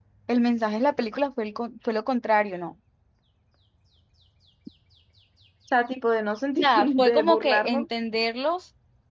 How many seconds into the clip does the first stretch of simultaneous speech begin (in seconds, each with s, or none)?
6.6 s